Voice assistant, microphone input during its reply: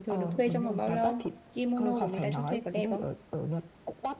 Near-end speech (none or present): present